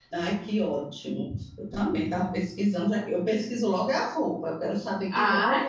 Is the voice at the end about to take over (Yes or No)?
Yes